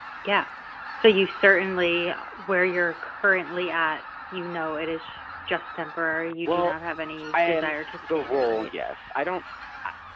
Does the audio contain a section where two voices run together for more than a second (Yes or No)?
Yes